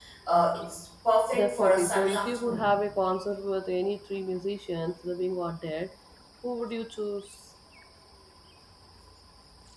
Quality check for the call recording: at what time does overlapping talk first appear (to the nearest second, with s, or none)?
1 s